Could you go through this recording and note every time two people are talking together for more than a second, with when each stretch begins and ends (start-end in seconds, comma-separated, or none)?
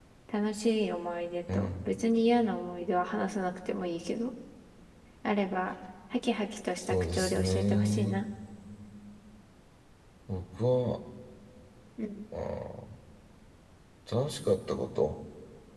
6.8-8.2